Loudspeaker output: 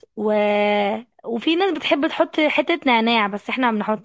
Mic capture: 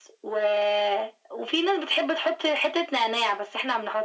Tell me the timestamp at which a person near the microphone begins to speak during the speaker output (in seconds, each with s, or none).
none